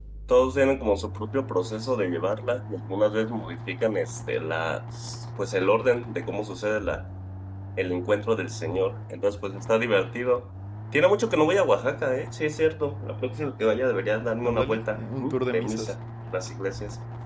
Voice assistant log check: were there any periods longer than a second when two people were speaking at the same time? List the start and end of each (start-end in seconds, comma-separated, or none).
14.4-15.9